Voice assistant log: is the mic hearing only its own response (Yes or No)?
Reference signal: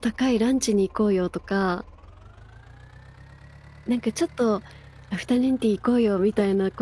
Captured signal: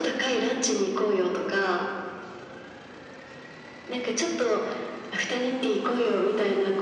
Yes